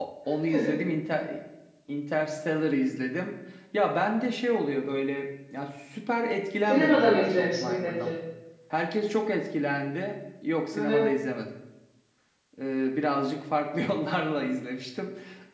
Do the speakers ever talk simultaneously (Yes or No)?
Yes